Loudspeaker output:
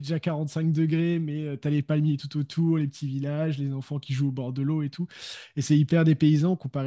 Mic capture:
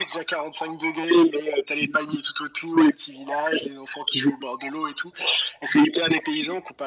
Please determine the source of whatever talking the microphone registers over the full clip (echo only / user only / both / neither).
echo only